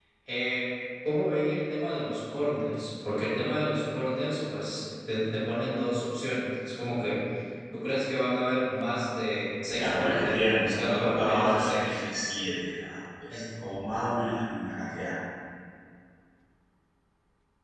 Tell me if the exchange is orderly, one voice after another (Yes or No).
No